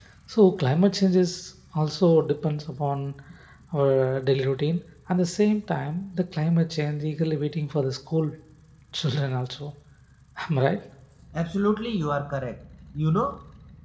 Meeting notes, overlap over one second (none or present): none